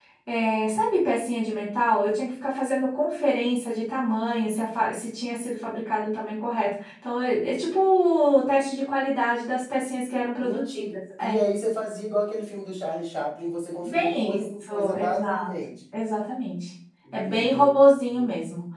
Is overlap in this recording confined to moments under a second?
No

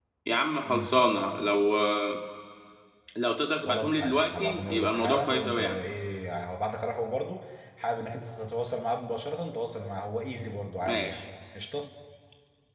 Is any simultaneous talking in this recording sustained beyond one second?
Yes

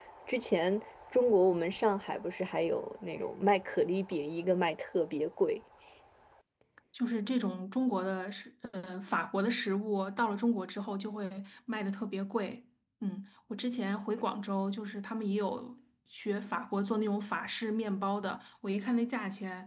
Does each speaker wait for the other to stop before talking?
Yes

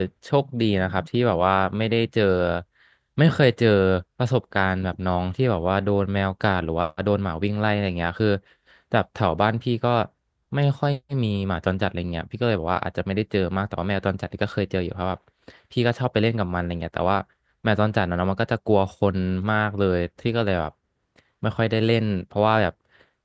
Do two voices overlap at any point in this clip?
No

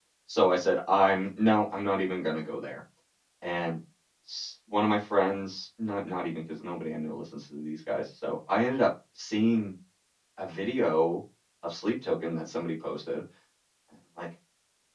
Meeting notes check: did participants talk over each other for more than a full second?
No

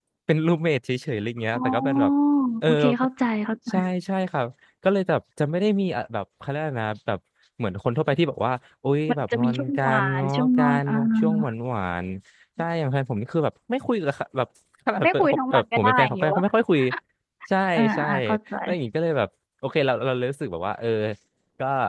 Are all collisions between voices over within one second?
No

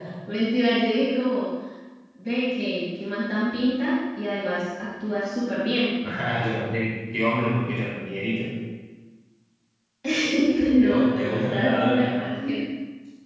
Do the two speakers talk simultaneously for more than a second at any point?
Yes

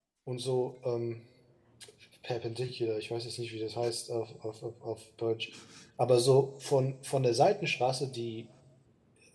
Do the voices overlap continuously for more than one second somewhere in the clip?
No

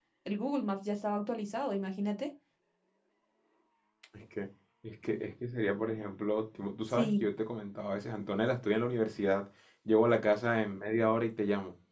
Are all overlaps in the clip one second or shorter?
Yes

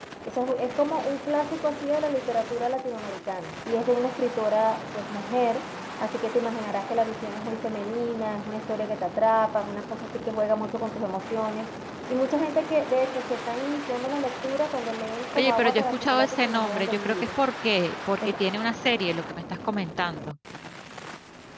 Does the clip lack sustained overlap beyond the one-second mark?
No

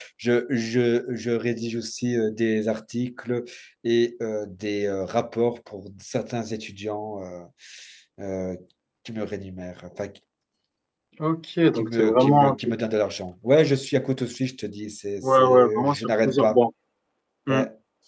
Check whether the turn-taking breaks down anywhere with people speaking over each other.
Yes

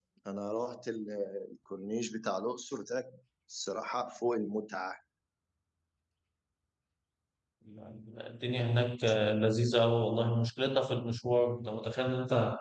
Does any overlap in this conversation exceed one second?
No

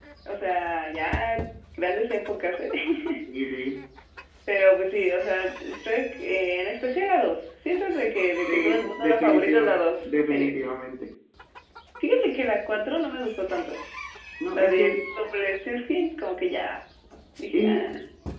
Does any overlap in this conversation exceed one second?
Yes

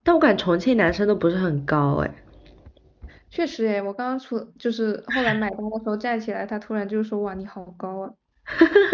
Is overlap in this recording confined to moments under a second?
Yes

